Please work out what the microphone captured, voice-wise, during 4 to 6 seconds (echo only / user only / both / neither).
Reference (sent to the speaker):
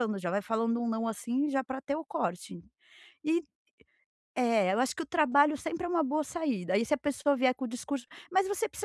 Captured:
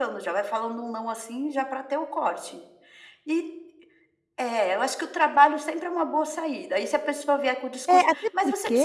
echo only